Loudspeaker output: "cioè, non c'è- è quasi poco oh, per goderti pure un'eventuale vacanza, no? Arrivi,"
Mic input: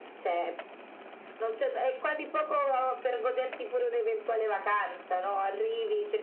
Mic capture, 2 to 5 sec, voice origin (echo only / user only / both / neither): echo only